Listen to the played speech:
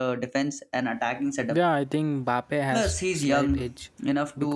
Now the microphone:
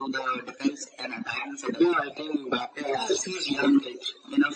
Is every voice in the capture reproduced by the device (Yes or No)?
Yes